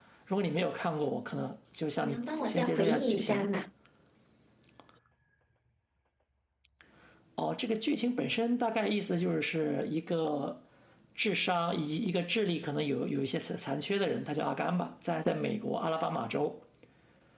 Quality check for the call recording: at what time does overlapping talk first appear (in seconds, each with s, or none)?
2.0 s